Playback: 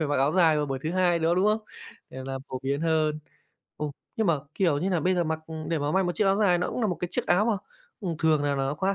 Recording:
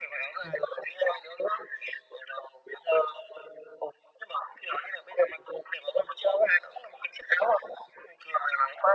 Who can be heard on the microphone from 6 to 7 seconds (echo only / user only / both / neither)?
echo only